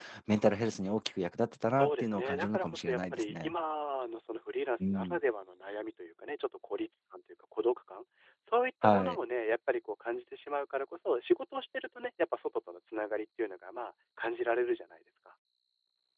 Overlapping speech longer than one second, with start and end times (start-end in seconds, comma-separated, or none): 1.8-3.5